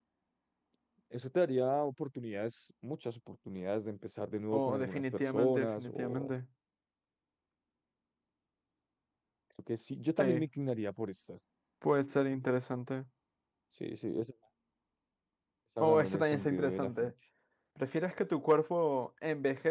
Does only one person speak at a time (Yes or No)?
No